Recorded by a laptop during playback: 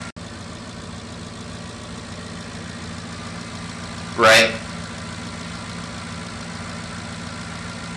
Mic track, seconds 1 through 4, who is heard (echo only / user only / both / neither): neither